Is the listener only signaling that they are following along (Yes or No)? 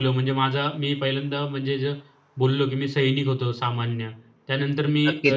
No